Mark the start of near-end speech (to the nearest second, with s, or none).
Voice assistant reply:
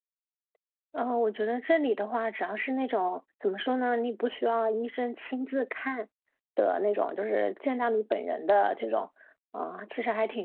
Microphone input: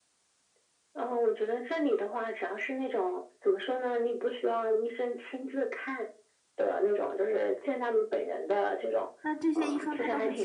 9 s